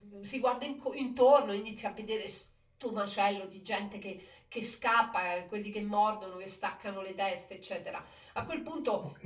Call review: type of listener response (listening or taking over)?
listening